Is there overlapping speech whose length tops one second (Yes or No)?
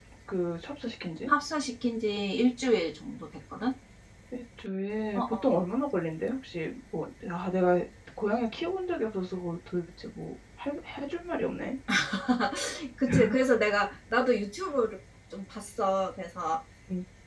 No